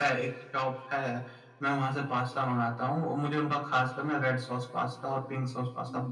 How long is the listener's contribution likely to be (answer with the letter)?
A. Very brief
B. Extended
A